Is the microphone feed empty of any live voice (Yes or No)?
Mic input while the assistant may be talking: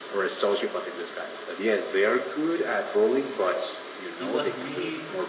No